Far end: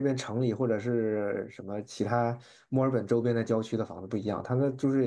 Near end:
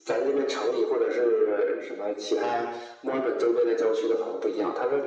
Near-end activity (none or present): none